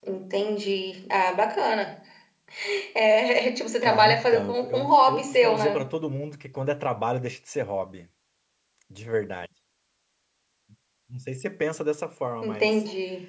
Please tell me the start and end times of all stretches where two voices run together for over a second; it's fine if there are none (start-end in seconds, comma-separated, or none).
3.8-5.8